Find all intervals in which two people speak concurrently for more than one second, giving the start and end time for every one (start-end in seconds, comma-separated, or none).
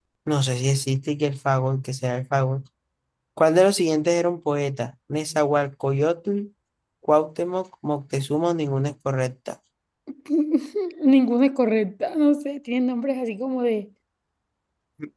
none